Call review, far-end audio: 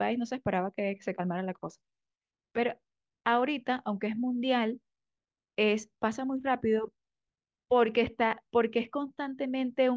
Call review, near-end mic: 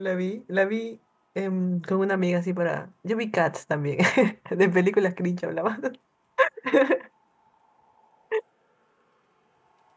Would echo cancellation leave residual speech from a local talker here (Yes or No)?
Yes